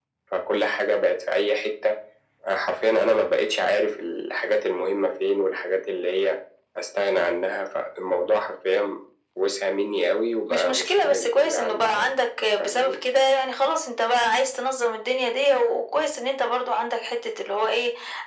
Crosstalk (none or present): present